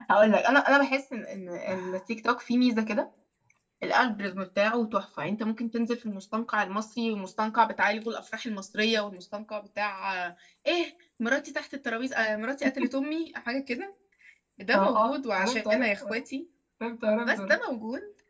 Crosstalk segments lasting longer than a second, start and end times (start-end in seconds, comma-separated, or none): 14.7-16.2